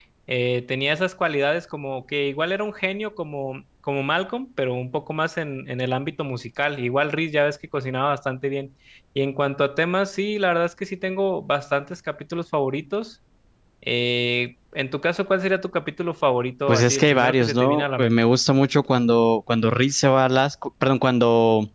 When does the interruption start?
16.7 s

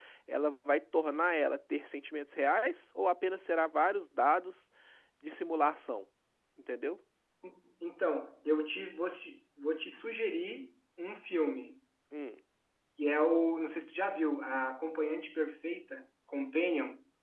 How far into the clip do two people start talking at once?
none

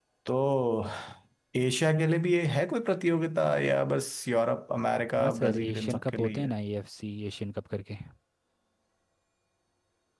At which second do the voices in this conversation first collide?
5.2 s

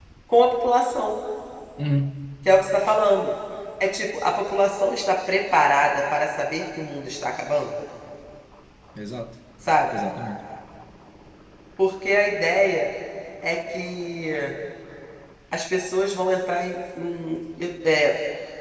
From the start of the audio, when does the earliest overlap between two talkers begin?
none

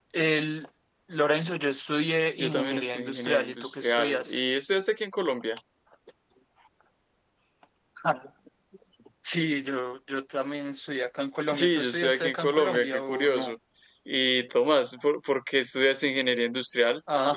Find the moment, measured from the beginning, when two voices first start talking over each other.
2.4 s

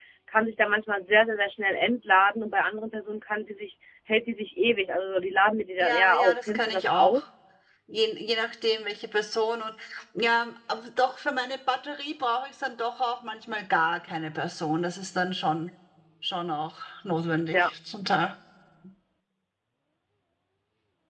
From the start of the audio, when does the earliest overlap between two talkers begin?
5.8 s

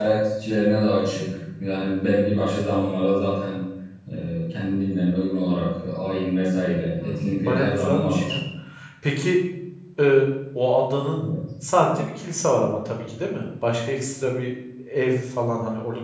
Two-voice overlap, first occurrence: 7.0 s

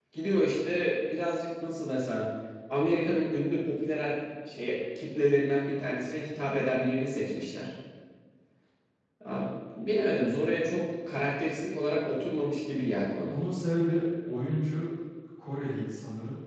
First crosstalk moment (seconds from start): none

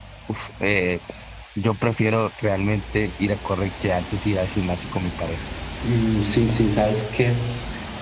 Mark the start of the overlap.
none

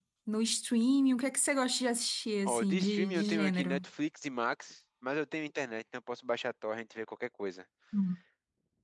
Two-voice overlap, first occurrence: 2.5 s

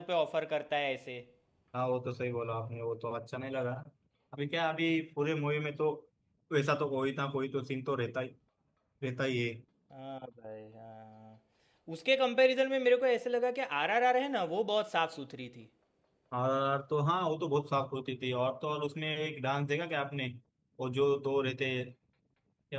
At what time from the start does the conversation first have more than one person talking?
none

